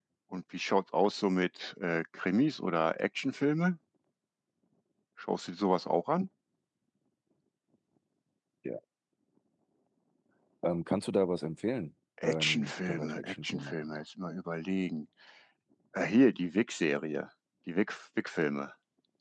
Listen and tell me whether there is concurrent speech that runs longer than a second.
Yes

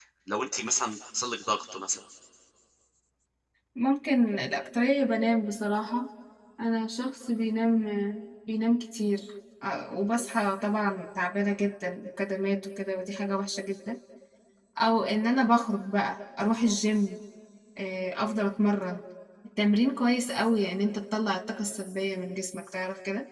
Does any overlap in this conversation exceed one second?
No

